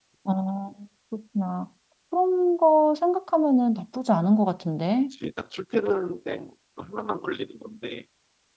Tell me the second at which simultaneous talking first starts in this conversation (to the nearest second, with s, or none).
none